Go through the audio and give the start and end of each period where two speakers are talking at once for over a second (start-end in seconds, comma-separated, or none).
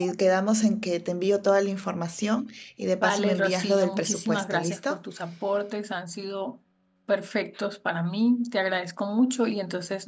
3.0-5.0